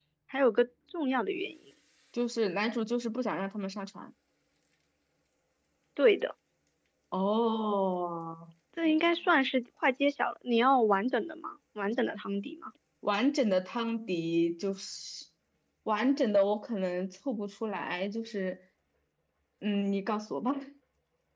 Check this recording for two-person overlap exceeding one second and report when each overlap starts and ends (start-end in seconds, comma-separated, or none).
none